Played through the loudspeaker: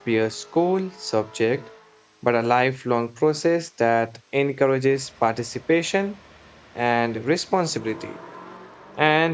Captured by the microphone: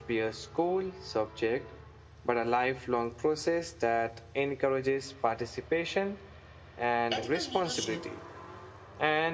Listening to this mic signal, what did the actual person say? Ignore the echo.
Ethical leadership,

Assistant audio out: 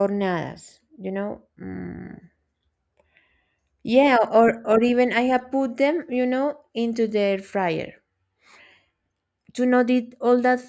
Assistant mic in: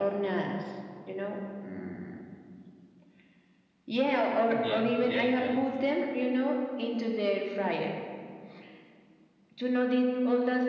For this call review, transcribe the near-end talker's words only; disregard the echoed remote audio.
Yeah, yeah, I got it.

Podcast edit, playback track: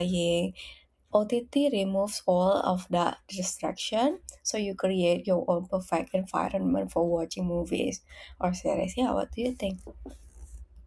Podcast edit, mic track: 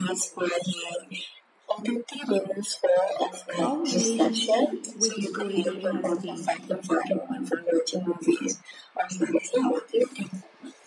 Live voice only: how relationship with storytelling has changed.

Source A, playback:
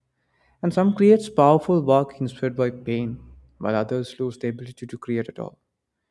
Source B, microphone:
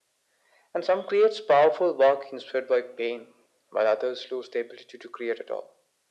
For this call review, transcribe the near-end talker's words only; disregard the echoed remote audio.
none

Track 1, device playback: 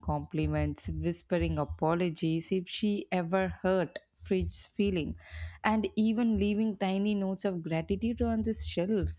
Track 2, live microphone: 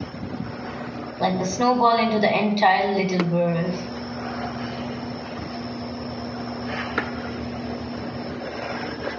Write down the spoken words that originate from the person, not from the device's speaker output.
like the snowball into the entire little world.

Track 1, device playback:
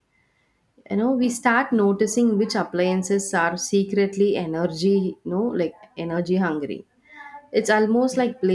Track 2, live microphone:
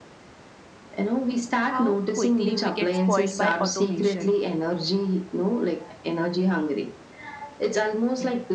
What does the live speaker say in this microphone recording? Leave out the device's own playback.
how quickly we get spoiled by automation.

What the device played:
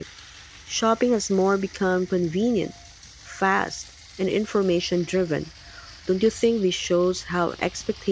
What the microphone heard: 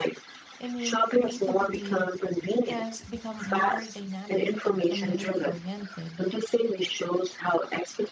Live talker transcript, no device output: I mean, creativity has become more dynamic and community oriented.

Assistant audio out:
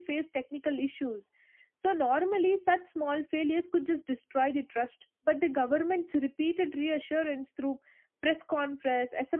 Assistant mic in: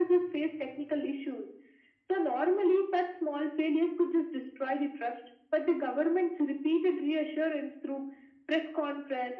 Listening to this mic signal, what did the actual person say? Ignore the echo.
none

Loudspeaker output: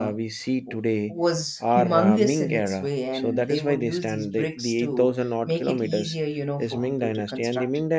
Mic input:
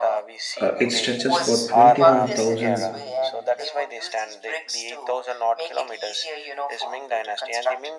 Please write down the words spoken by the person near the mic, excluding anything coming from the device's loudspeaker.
Uh, it stretches for 21,000

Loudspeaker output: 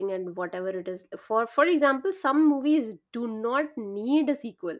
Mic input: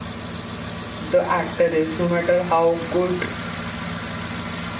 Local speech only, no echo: the actor is no matter how good

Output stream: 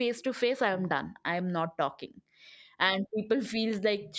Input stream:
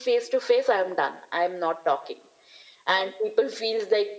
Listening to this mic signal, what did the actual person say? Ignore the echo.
none

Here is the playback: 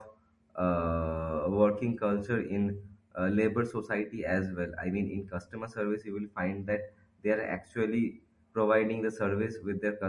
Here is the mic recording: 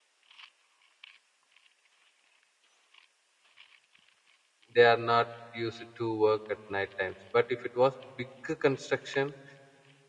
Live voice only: they are not used to work at night times but if it was bigger construction

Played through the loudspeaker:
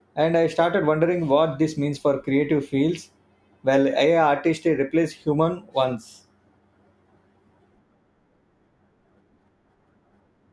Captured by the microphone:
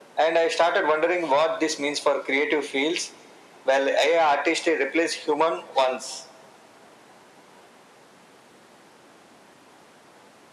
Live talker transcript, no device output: none

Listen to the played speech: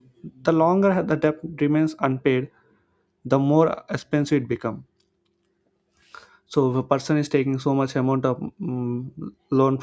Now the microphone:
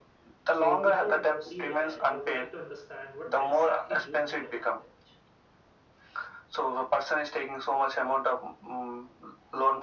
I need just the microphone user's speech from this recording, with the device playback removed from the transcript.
so before i proceed ahead i would like to understand what exactly you think about it

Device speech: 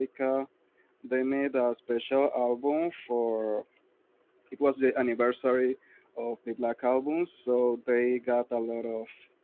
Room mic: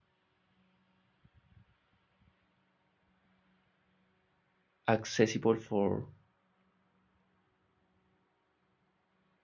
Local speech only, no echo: accessible for

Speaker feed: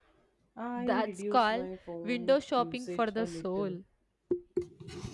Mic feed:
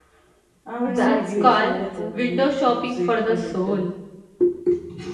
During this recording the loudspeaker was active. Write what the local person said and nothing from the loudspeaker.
What's your favorite dessert?

